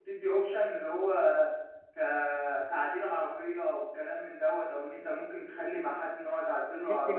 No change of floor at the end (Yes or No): No